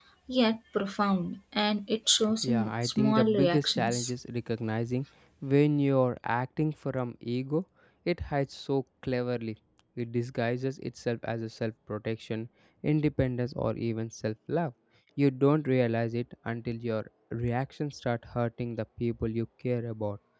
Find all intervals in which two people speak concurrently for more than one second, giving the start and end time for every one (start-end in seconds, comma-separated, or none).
2.5-4.1